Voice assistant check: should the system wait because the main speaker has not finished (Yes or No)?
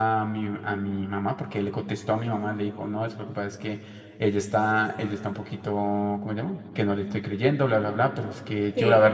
Yes